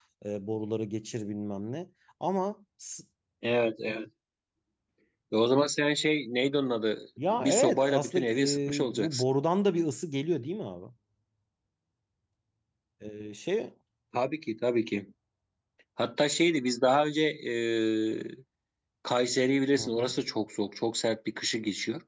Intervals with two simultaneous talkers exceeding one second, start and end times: 7.3-9.2

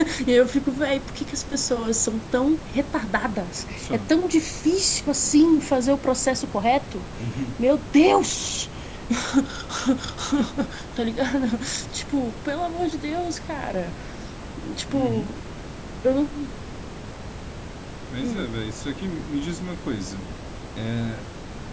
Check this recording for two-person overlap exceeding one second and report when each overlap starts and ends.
none

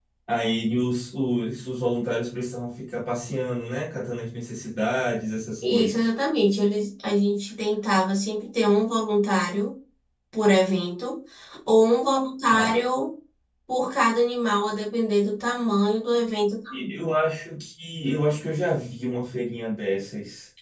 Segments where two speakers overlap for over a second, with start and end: none

